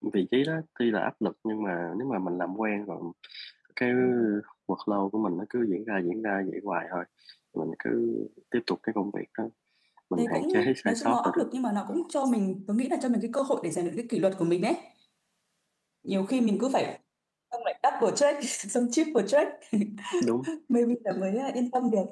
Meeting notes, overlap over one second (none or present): present